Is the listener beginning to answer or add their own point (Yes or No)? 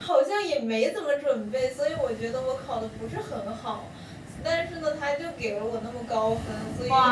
Yes